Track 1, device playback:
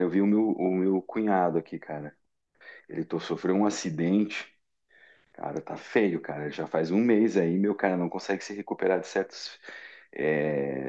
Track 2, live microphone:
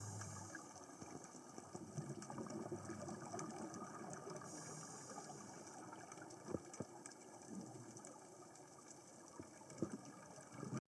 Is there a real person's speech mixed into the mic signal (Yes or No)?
No